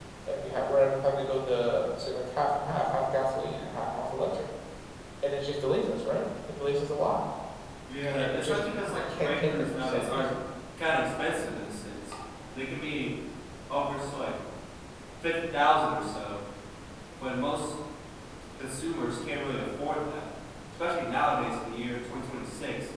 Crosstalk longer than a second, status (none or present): present